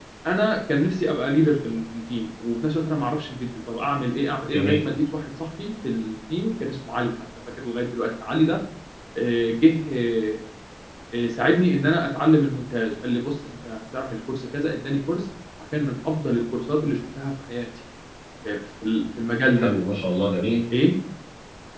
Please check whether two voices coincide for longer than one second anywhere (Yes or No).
No